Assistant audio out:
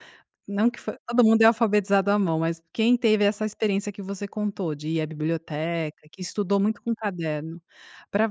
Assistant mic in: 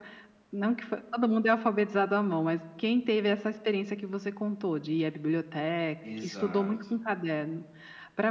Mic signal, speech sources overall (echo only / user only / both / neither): both